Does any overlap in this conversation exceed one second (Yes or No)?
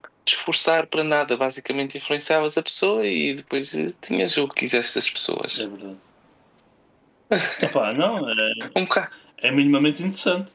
No